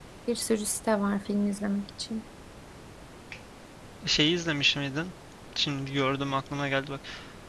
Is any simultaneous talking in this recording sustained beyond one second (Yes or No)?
No